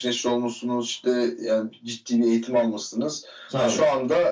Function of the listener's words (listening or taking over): listening